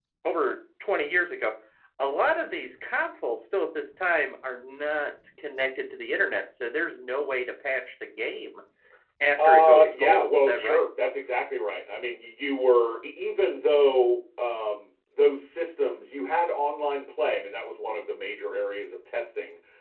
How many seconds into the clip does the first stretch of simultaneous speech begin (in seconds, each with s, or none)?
9.4 s